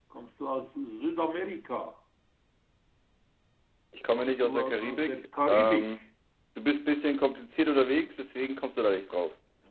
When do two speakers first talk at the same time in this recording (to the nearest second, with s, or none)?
4 s